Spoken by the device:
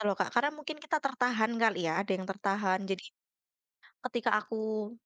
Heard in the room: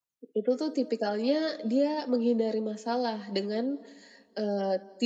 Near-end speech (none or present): present